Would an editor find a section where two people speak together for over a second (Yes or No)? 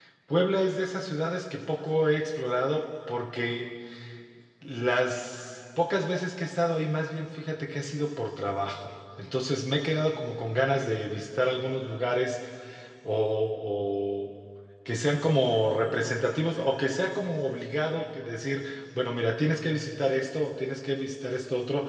No